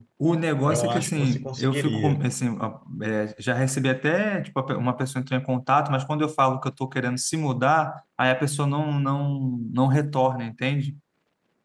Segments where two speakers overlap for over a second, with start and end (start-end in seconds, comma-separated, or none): 0.7-2.2